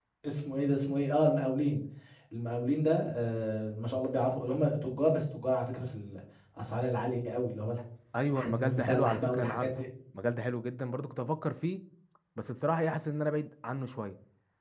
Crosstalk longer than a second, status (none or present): present